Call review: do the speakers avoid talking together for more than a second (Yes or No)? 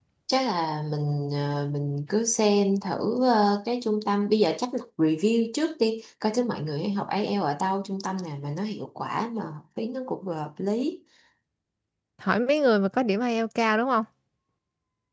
Yes